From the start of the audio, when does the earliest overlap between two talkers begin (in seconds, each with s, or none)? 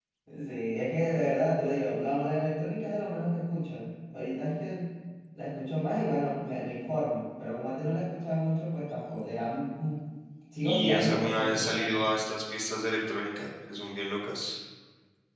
10.6 s